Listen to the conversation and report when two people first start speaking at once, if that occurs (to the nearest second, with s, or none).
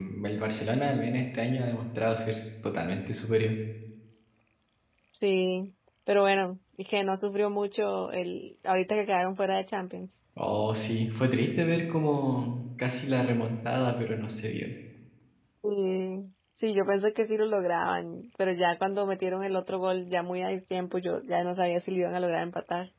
none